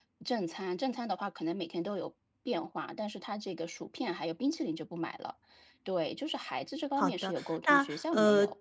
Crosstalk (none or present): present